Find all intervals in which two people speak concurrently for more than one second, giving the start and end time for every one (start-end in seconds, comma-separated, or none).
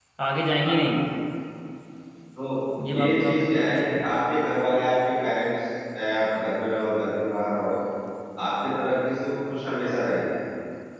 2.9-4.2